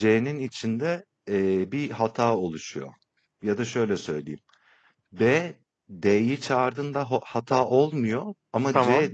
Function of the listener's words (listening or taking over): listening